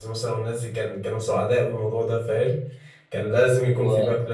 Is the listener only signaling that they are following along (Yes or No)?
Yes